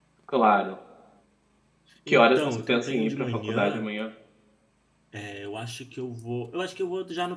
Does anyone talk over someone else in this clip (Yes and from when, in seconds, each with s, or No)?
Yes, from 2.1 s